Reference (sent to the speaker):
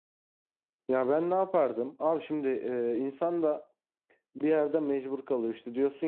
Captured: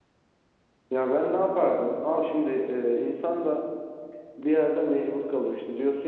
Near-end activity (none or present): none